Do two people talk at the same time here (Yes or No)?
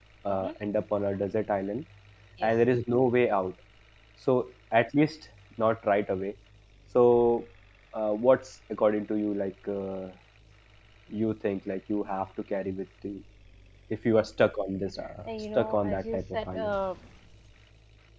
Yes